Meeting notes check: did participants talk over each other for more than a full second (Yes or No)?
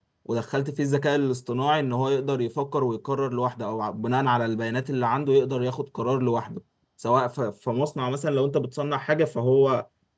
No